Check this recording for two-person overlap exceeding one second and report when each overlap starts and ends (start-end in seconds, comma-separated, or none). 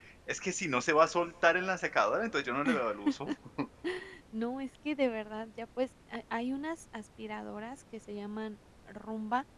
none